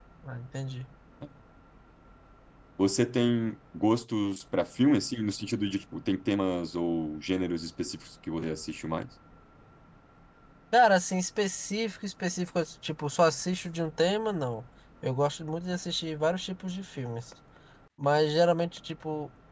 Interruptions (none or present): none